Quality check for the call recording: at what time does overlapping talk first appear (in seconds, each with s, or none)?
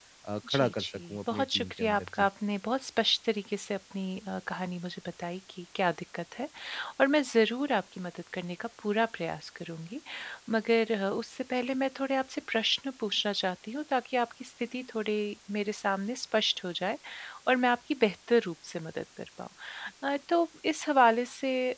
0.5 s